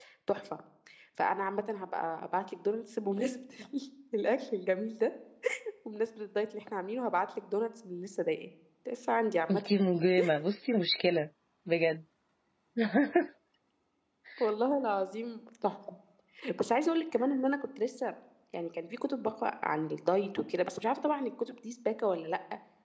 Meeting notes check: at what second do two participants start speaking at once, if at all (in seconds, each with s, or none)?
none